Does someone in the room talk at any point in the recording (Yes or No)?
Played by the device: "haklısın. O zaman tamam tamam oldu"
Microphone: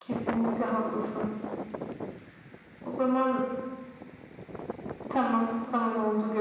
No